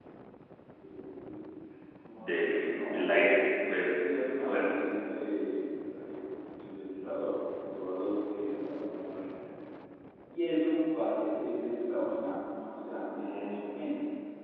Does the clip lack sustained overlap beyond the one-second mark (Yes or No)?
No